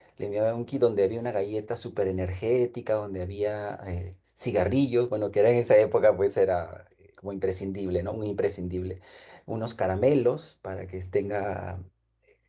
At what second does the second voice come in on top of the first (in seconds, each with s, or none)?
none